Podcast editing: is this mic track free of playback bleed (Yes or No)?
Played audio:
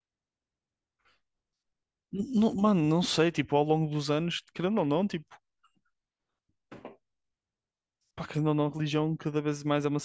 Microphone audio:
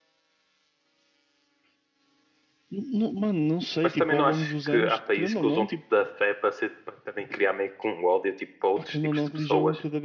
No